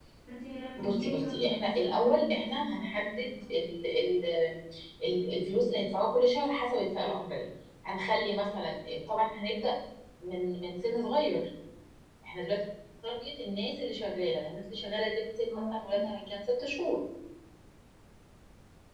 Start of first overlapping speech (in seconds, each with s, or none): 0.8 s